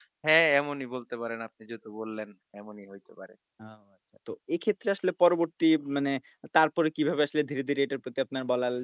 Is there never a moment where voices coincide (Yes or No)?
Yes